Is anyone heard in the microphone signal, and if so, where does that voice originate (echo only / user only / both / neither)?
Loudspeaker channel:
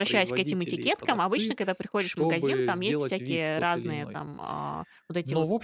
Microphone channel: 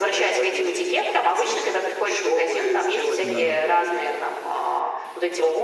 both